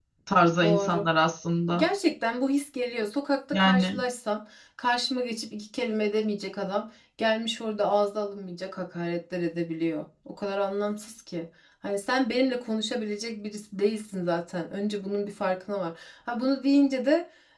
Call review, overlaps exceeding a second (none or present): none